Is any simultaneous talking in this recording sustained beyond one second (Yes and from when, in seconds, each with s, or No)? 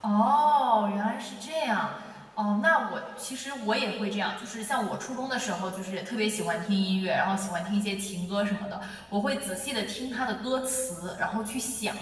No